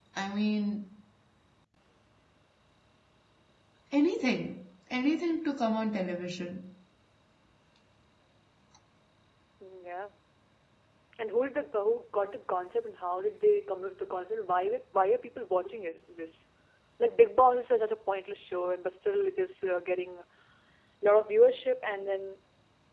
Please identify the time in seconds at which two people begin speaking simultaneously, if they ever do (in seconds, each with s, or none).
none